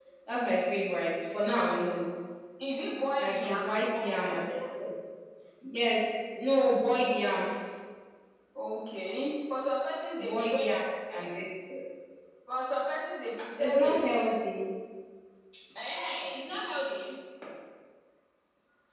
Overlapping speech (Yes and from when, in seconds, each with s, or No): Yes, from 3.2 s